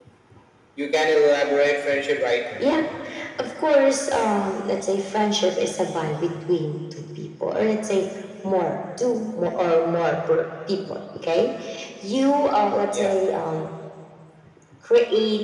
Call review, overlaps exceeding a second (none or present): none